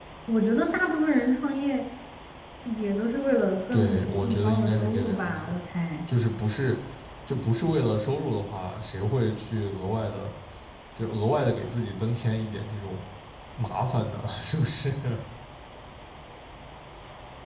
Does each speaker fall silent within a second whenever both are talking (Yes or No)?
No